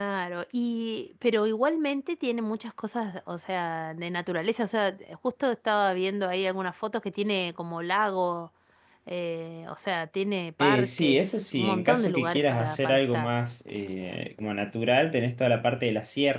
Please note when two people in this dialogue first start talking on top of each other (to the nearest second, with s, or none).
11 s